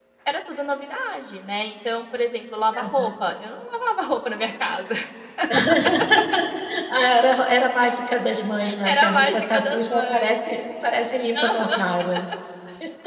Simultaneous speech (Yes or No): Yes